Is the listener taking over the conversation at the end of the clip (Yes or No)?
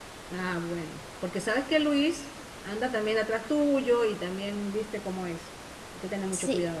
Yes